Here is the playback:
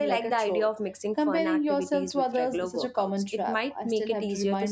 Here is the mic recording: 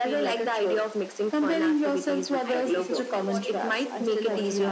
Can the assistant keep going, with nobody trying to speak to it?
No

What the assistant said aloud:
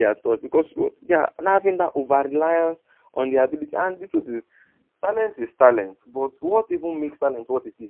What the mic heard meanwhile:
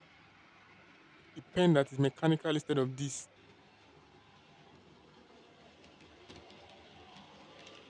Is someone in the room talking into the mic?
Yes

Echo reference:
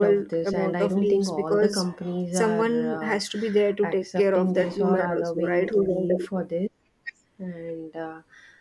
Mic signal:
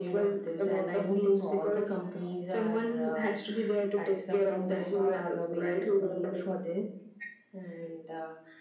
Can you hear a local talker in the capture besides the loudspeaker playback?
No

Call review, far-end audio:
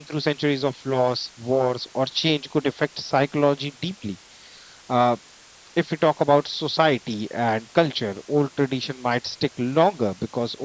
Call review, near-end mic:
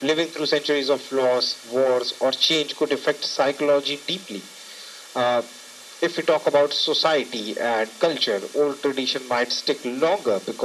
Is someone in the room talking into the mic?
No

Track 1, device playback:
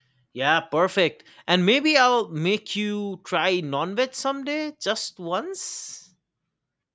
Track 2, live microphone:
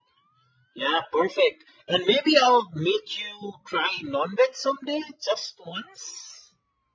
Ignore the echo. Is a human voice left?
No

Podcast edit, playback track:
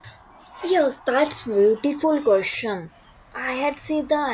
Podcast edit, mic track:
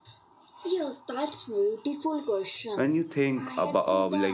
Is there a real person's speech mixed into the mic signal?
Yes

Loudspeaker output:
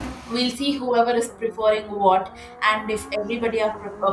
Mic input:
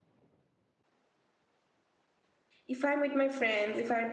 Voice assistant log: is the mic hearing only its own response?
No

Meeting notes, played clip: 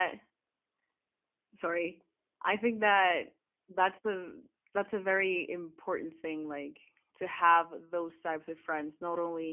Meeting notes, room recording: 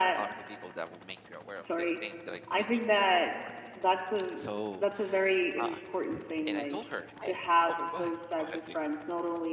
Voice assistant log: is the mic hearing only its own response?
No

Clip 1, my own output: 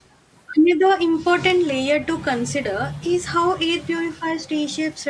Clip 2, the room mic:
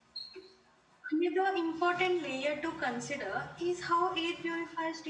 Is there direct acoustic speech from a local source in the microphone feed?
No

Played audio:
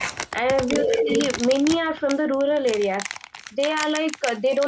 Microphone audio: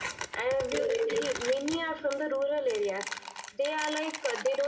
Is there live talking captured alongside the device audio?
No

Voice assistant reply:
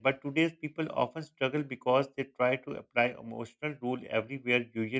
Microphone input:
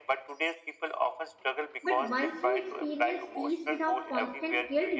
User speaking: Yes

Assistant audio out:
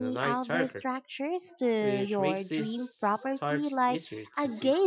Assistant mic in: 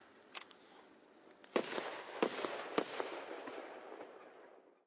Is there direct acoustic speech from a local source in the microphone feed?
No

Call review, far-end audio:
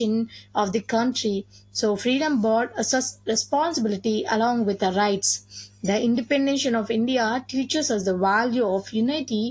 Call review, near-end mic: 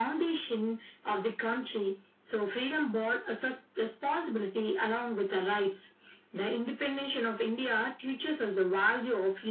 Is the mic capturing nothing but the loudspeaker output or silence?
Yes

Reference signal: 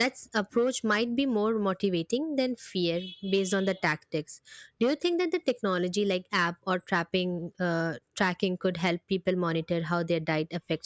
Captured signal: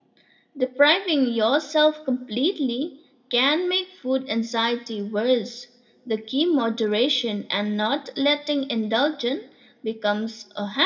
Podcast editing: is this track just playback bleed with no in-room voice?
No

